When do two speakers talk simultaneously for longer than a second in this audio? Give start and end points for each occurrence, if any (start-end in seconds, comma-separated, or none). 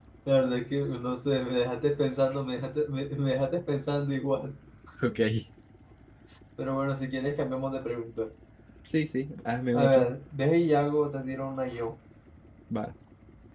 none